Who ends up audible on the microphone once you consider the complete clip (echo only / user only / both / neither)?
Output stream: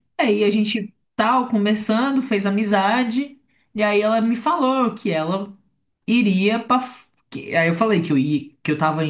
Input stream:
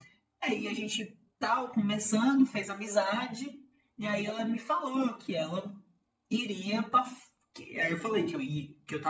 echo only